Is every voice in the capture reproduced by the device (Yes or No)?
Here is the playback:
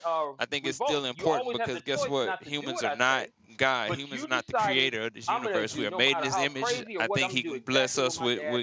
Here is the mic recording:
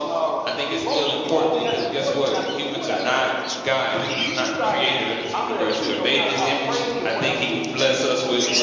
Yes